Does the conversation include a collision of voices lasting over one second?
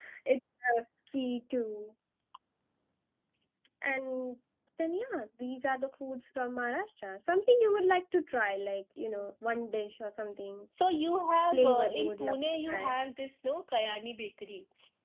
Yes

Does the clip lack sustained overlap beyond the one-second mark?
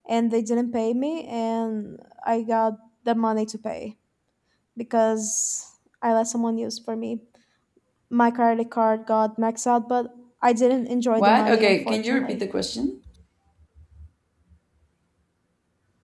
No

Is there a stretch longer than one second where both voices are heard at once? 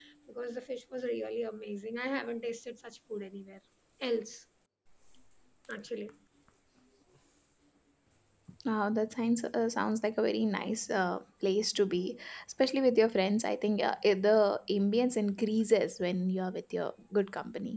No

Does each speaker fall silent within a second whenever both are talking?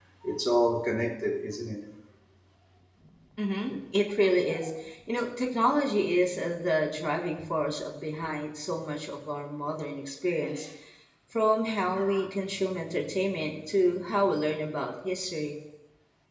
Yes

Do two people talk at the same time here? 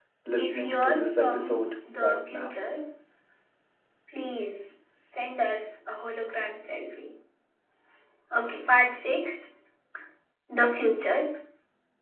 Yes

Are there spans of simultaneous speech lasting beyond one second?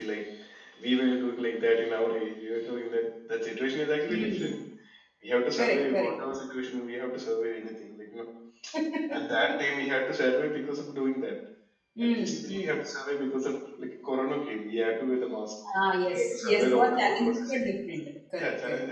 Yes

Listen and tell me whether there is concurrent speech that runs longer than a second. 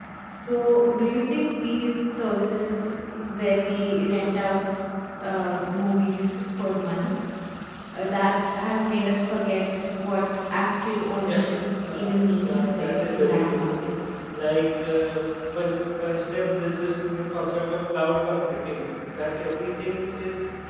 Yes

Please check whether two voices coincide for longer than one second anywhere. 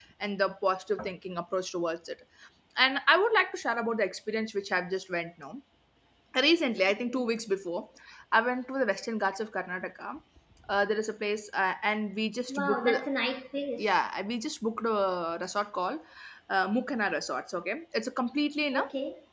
No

